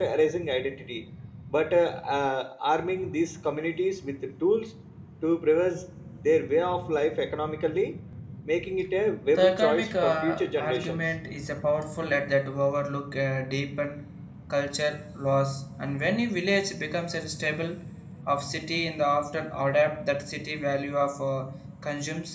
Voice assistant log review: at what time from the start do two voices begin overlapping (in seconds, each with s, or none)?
9.3 s